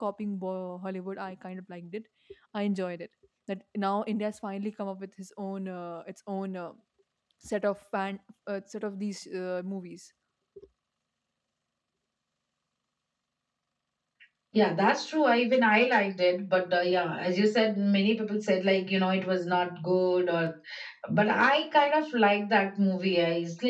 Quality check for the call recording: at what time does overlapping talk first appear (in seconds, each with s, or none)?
none